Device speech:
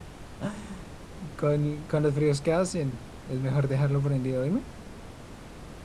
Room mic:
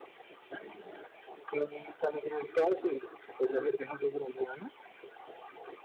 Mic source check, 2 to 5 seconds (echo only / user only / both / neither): echo only